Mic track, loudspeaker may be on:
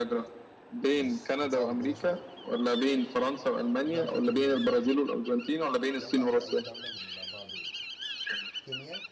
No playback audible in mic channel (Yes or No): No